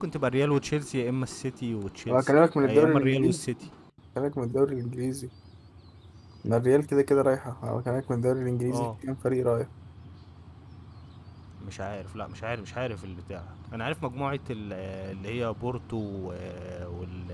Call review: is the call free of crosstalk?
No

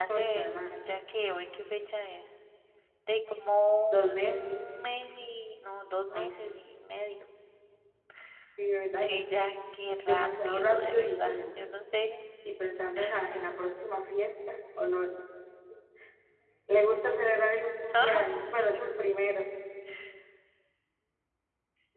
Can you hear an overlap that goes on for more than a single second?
Yes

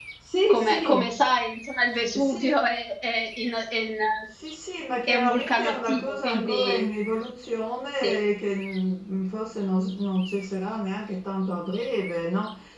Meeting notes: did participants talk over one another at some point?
Yes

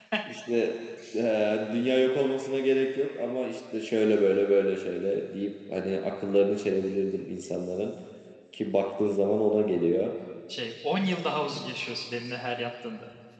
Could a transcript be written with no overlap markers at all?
Yes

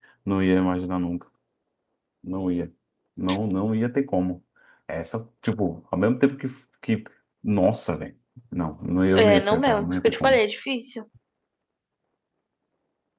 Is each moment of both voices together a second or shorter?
No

